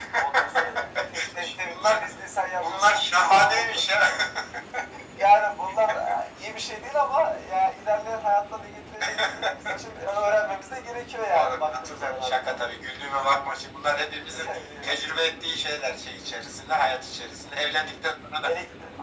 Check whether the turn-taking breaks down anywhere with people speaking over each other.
Yes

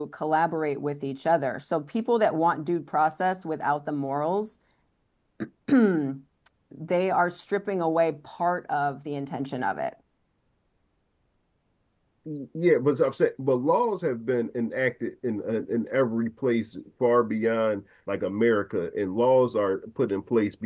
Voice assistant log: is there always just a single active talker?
Yes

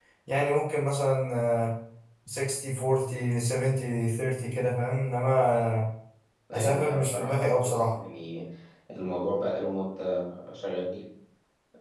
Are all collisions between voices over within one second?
No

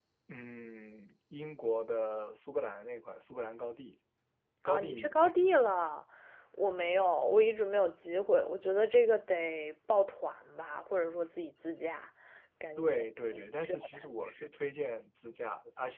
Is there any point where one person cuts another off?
Yes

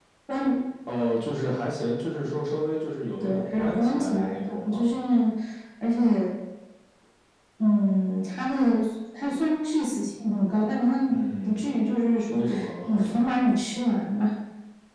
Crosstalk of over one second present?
Yes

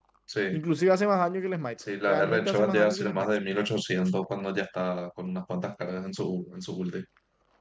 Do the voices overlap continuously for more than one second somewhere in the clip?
Yes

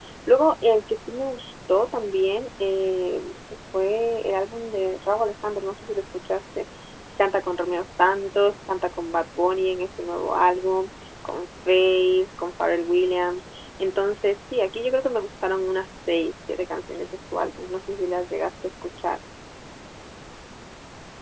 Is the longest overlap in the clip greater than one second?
No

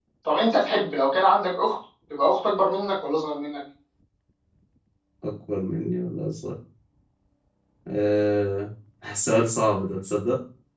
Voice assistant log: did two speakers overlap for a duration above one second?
No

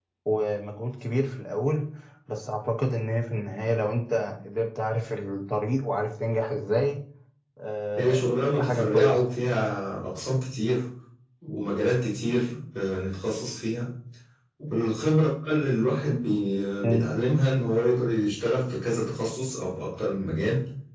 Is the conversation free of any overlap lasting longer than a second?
No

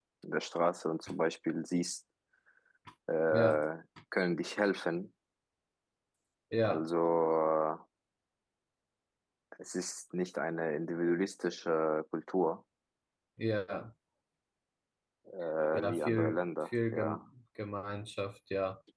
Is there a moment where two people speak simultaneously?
Yes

